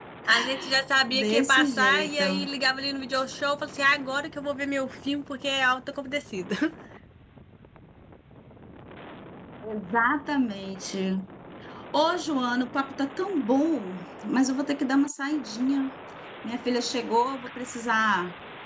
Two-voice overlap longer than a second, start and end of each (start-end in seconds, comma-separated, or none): 1.1-2.5